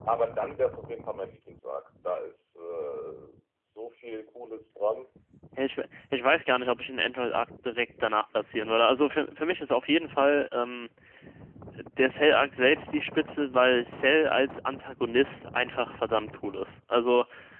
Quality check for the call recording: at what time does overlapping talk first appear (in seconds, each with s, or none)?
none